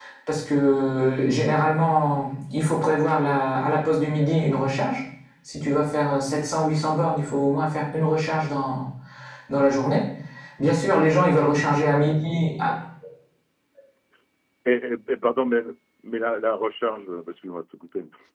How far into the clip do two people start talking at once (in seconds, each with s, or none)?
none